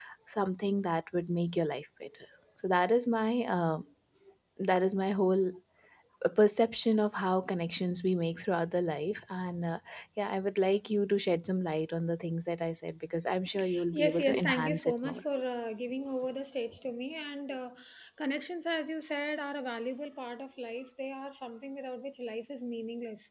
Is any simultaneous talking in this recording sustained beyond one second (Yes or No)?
Yes